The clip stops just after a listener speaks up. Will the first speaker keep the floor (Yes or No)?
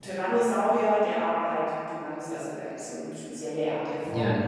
Yes